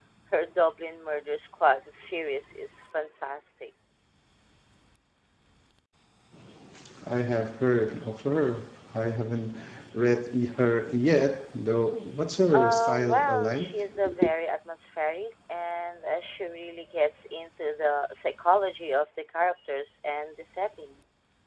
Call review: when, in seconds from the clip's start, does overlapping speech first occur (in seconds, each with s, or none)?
12.5 s